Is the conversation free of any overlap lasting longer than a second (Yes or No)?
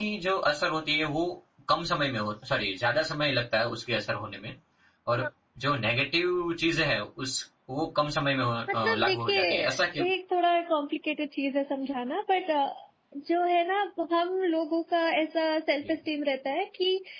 No